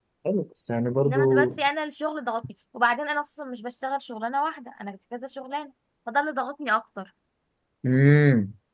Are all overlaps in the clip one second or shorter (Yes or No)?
Yes